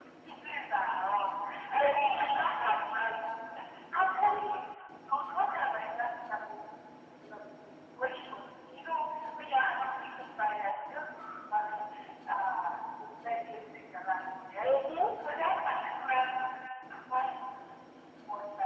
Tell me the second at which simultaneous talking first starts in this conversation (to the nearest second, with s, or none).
2 s